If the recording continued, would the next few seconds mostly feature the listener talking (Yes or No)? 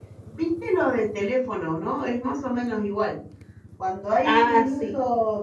No